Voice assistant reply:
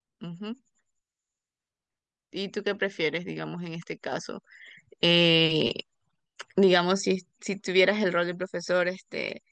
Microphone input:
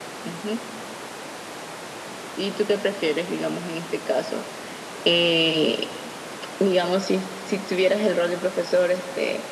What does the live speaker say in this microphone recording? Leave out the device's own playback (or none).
none